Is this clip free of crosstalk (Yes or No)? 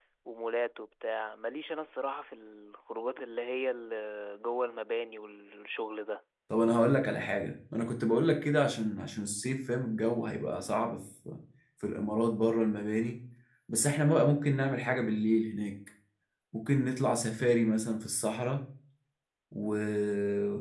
Yes